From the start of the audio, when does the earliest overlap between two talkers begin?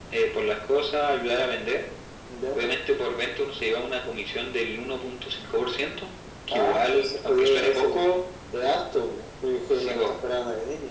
6.5 s

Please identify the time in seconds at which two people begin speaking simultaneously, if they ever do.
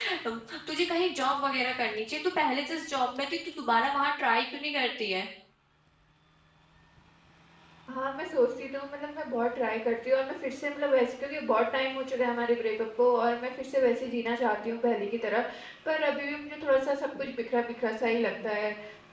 none

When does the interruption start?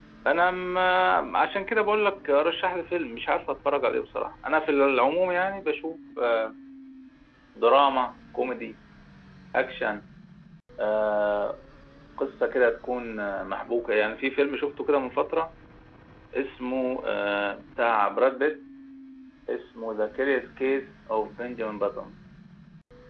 none

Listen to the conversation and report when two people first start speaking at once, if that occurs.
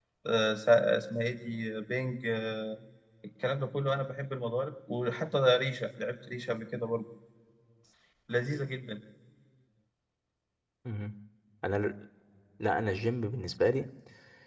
none

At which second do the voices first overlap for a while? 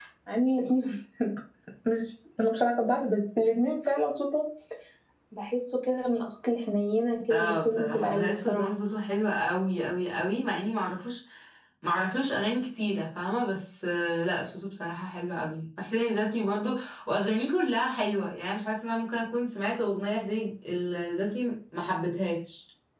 7.3 s

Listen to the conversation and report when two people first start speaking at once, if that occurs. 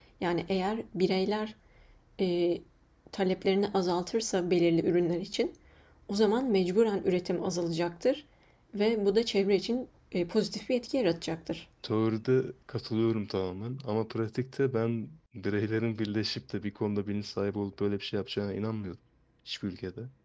none

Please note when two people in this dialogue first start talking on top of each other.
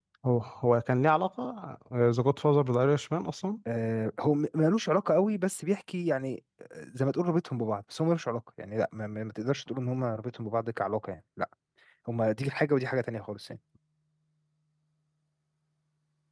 none

